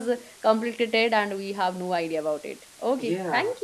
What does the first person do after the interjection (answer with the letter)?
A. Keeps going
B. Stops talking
B